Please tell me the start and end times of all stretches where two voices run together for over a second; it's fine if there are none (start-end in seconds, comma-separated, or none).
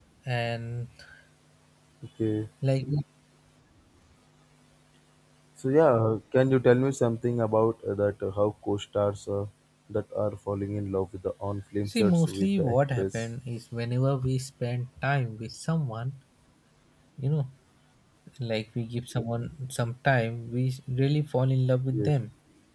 11.9-13.2